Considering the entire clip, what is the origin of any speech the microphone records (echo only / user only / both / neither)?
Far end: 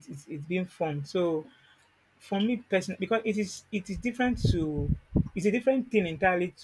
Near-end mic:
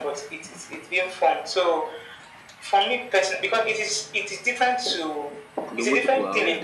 both